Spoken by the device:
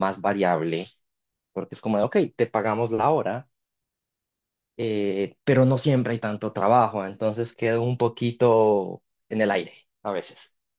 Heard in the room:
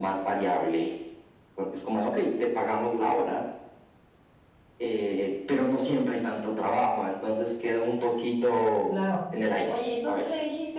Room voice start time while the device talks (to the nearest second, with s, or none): 9 s